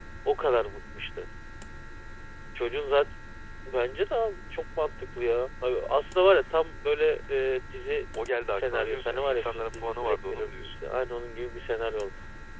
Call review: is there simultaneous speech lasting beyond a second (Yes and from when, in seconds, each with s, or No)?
Yes, from 8.5 s